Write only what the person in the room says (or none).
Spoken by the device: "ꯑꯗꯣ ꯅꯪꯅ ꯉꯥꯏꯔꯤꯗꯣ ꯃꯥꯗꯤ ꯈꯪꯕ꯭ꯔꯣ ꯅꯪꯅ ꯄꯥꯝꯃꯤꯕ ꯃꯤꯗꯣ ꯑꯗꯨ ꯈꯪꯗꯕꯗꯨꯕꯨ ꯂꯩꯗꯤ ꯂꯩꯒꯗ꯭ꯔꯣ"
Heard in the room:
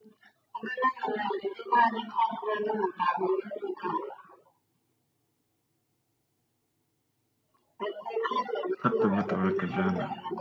ꯐꯠꯇꯕ ꯇꯧꯔꯛꯀꯗ꯭ꯔꯅ